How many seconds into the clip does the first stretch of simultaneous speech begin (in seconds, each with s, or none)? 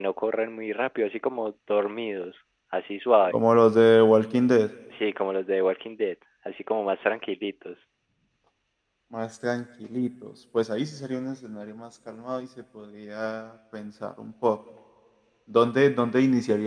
none